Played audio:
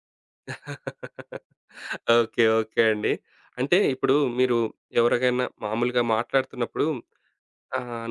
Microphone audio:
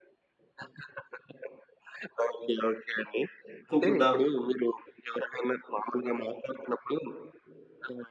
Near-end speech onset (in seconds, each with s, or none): 3.7 s